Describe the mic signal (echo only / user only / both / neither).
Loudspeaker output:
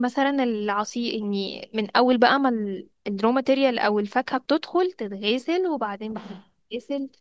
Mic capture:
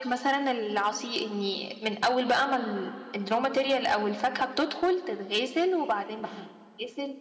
echo only